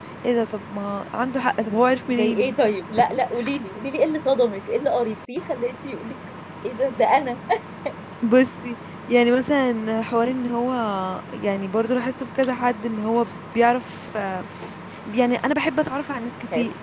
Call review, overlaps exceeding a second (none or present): none